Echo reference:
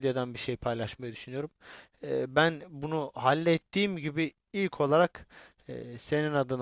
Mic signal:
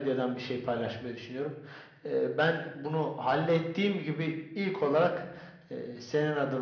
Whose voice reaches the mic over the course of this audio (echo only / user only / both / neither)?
echo only